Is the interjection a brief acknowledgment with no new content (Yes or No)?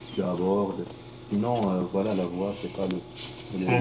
No